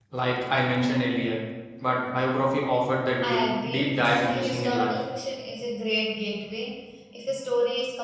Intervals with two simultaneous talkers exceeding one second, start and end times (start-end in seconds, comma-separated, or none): 3.2-4.9